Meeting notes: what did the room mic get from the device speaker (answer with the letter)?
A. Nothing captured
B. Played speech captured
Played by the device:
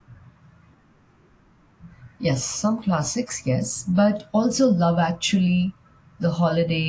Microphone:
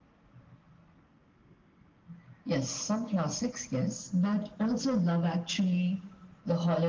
B